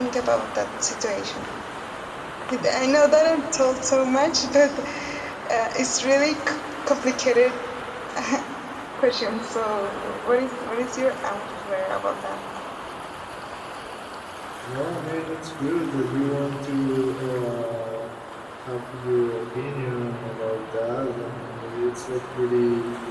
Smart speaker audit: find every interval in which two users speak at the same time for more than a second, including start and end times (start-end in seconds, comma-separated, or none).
none